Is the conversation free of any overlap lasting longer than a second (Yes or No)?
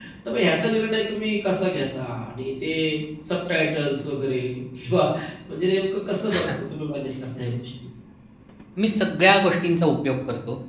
Yes